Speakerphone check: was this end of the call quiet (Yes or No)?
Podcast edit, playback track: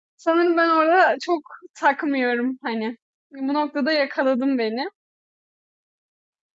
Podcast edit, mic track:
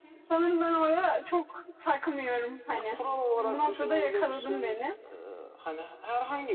No